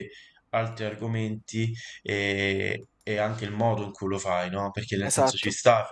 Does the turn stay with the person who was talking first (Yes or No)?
Yes